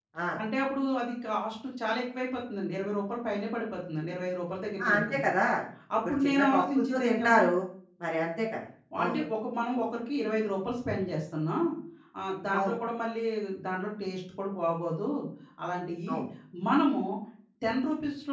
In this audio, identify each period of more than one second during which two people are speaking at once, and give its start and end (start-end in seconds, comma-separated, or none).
6.1-7.4